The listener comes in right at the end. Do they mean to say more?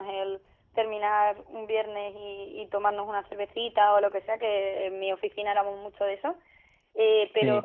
No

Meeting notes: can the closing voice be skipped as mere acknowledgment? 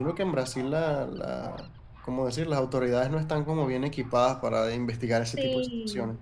No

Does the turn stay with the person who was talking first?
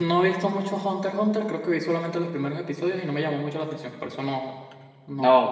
No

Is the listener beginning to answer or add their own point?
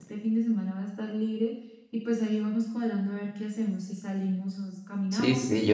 Yes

